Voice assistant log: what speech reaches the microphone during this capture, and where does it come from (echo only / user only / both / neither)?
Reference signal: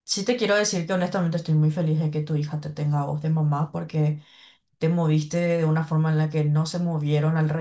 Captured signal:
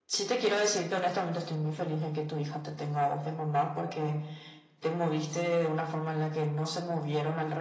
echo only